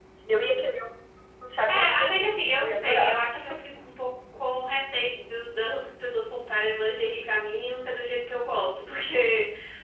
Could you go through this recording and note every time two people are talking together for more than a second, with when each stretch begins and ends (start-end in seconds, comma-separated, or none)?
1.7-3.1